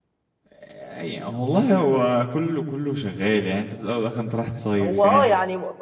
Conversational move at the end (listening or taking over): taking over